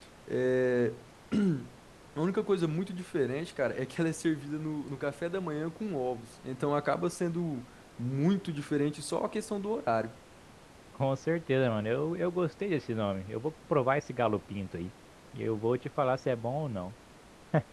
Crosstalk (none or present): none